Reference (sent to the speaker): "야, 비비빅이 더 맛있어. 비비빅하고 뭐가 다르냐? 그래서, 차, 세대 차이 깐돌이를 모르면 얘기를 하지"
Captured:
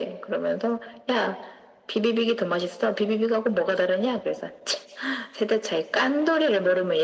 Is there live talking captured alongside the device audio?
No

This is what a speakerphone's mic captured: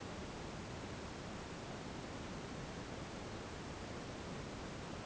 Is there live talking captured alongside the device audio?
No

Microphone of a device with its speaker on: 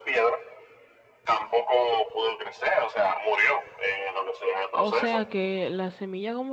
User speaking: Yes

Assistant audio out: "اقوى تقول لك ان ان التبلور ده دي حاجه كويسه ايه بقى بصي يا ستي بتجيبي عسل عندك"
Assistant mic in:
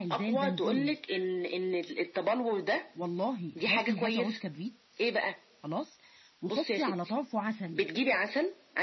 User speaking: Yes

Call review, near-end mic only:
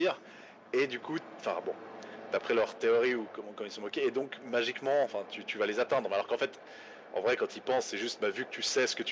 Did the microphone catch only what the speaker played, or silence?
Yes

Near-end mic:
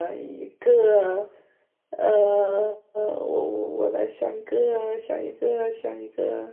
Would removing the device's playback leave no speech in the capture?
No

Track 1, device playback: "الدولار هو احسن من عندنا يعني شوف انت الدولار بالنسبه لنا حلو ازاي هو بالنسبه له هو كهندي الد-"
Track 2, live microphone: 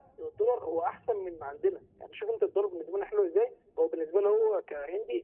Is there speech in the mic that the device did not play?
No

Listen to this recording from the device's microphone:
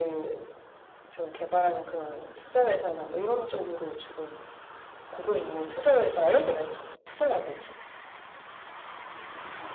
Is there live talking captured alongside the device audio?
No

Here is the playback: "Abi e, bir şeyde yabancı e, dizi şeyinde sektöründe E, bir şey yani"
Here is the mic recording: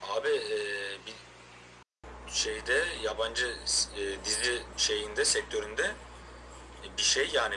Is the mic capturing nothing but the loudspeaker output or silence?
Yes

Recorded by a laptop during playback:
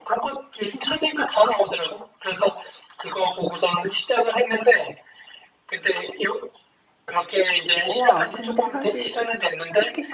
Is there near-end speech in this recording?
Yes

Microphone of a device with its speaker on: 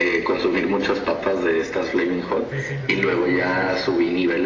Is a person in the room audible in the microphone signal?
Yes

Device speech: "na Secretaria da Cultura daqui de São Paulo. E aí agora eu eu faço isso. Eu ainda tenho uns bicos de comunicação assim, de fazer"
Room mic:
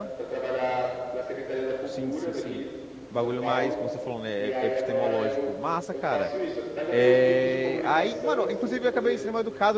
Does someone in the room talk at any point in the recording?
Yes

